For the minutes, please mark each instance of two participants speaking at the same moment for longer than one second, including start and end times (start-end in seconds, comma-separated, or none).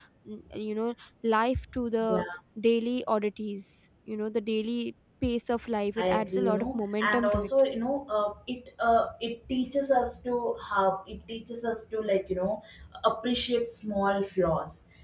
6.0-7.5